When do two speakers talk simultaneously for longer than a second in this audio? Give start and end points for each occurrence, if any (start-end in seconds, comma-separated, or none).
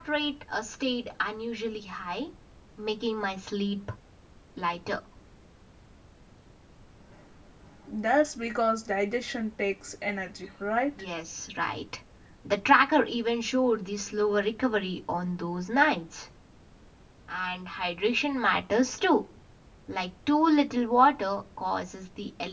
none